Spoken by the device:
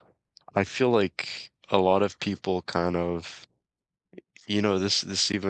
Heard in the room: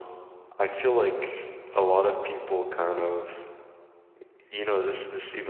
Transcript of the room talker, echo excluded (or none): none